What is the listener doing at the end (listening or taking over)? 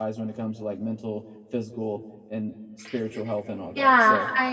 taking over